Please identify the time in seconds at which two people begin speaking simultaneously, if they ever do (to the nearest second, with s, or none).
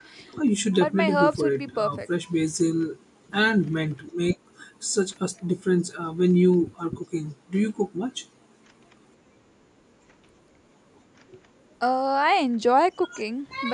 1 s